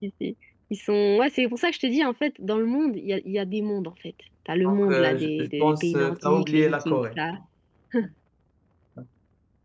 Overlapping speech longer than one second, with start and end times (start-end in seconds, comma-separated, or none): 4.6-7.2